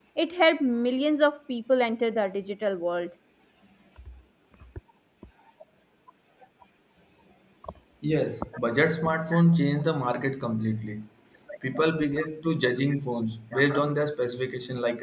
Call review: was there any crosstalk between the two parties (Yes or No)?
No